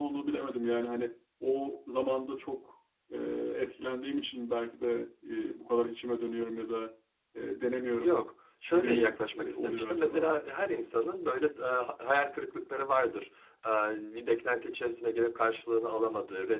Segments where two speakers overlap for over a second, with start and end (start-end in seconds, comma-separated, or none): 8.7-10.3